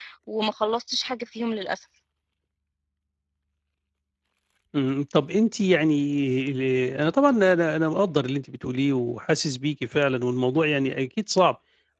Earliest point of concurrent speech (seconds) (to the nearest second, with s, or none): none